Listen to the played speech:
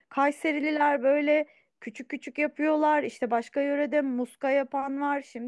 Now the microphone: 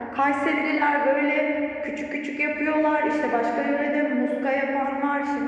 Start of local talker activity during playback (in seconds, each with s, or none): none